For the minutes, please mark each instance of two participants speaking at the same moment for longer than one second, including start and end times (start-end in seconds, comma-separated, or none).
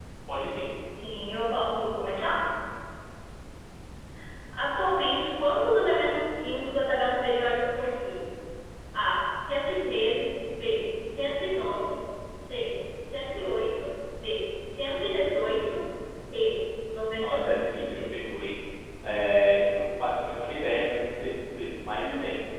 17.2-18.4